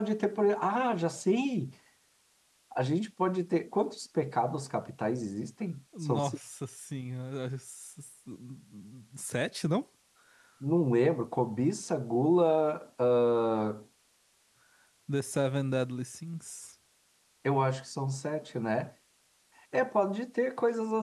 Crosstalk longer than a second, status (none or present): none